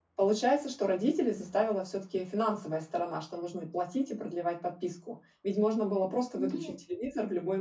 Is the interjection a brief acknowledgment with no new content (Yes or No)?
Yes